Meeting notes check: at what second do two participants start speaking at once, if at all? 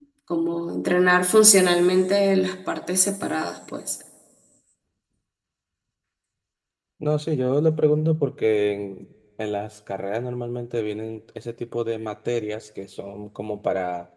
none

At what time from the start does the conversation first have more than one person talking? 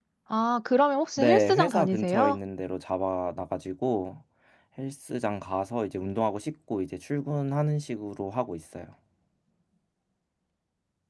1.2 s

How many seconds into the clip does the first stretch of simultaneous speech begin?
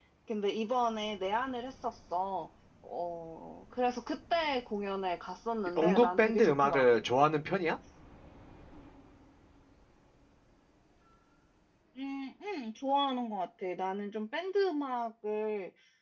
5.8 s

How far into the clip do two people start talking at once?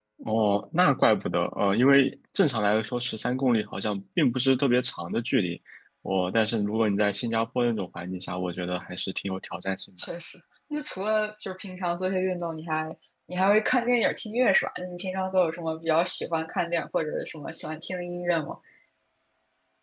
none

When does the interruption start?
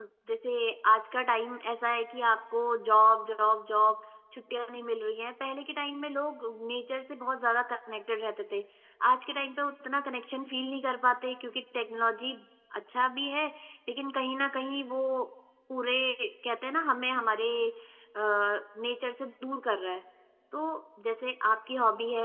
none

